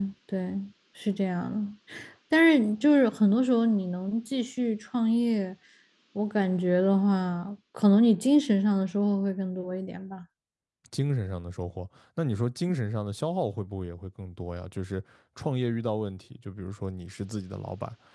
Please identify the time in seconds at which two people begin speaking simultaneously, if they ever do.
none

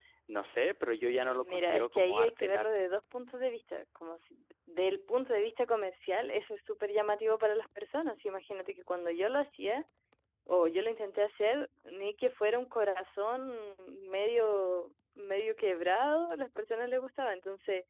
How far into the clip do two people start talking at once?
1.2 s

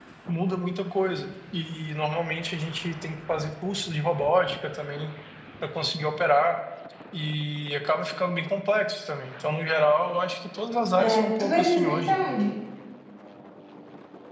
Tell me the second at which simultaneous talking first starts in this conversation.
11.0 s

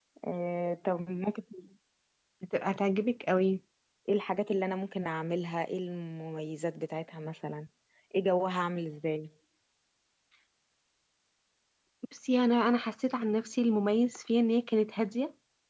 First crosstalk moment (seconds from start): none

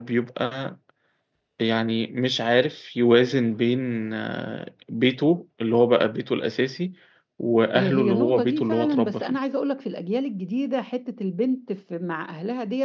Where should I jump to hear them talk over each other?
7.7 s

